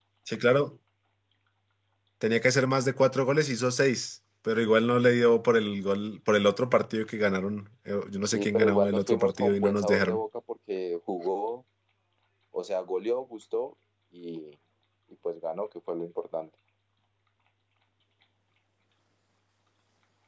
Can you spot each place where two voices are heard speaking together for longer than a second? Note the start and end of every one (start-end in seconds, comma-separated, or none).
8.2-10.2